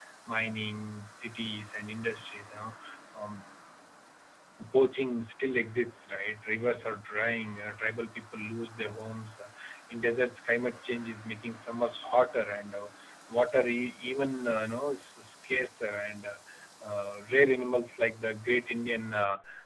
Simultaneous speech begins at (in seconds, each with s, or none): none